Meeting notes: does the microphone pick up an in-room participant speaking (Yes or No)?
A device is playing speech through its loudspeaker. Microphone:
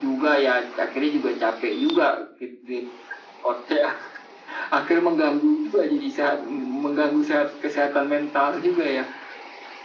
No